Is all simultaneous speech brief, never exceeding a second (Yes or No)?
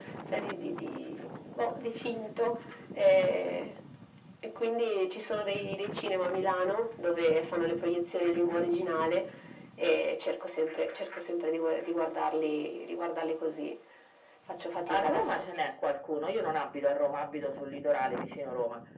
Yes